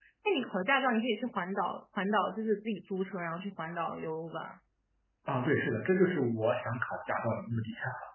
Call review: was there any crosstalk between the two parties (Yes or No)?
No